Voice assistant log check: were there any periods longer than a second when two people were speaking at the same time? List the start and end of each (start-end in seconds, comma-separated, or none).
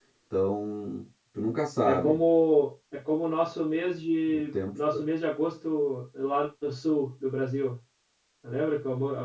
none